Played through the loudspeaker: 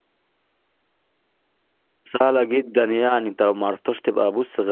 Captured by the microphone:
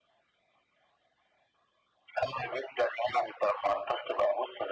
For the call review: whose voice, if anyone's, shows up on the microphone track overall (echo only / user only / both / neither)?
echo only